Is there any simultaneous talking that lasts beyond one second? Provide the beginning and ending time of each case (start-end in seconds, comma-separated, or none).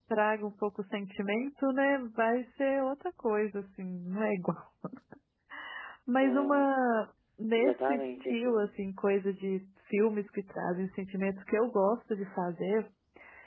7.5-8.8